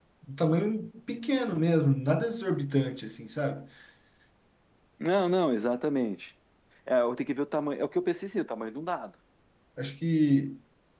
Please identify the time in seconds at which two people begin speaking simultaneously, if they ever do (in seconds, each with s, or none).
none